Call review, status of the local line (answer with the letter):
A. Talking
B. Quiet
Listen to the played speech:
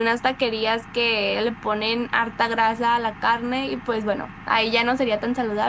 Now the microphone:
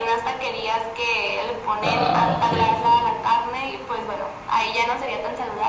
A